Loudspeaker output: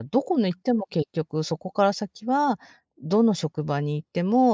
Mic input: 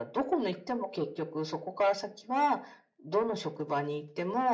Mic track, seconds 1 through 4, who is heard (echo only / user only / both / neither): echo only